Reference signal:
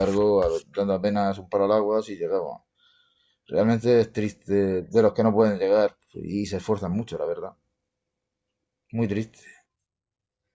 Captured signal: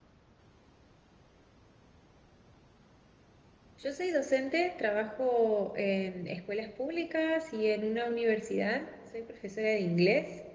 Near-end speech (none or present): present